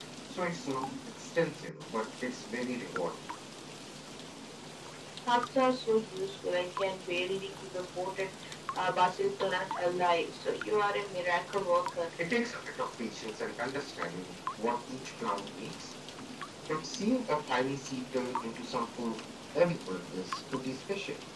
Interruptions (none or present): none